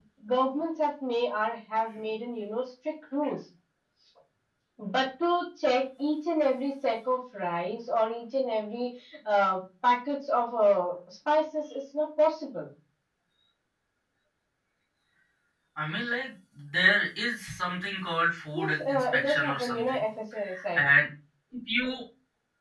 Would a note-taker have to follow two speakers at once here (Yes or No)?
Yes